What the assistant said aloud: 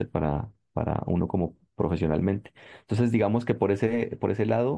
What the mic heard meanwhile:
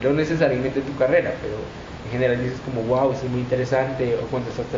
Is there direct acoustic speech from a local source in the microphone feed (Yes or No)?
Yes